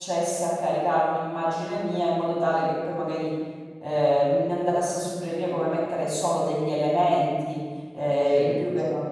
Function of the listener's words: listening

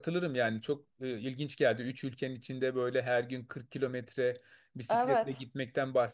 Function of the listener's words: listening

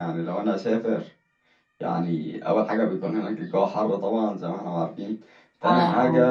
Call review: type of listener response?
listening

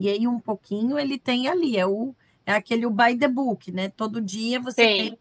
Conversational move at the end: listening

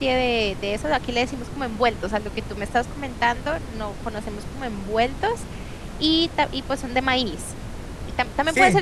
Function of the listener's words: listening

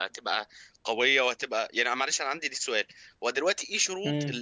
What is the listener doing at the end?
listening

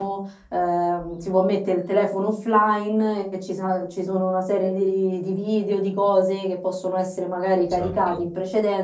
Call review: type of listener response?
listening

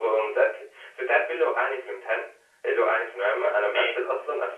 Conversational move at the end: listening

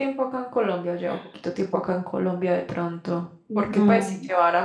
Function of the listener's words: listening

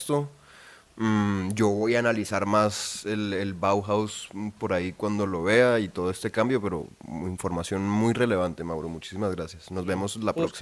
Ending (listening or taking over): taking over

